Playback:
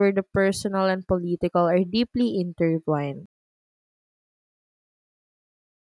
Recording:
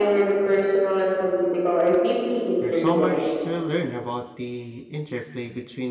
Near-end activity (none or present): present